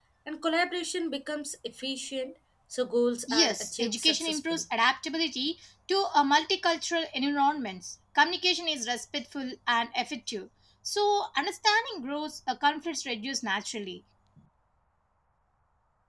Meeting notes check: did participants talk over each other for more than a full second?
Yes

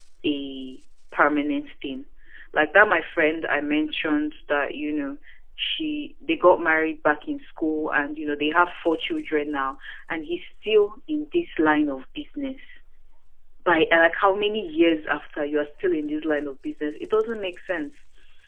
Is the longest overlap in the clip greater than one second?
No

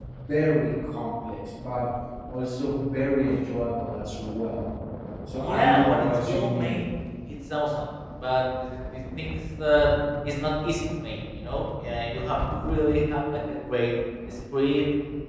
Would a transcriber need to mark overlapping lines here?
Yes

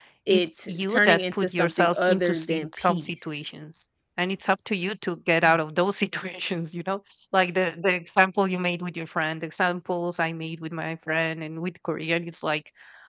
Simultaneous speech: Yes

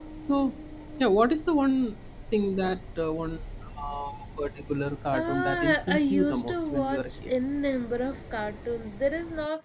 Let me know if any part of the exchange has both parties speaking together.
Yes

